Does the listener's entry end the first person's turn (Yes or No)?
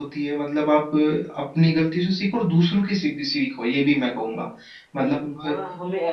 Yes